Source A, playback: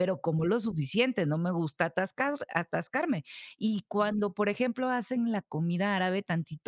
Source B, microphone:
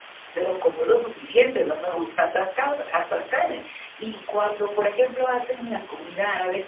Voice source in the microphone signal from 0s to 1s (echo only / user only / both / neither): echo only